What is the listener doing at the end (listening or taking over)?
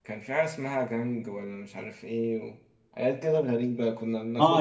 taking over